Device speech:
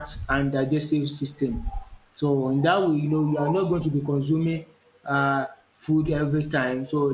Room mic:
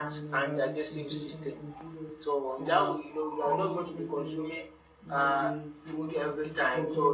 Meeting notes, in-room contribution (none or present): present